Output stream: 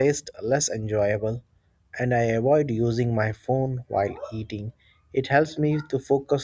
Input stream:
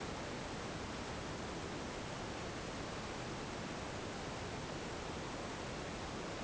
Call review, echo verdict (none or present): none